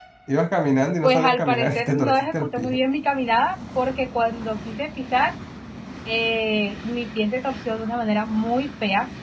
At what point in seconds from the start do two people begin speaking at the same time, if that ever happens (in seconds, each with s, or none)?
1.0 s